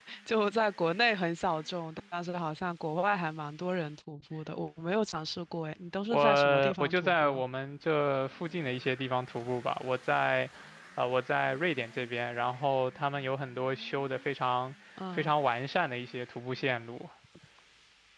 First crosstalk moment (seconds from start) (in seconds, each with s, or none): 6.1 s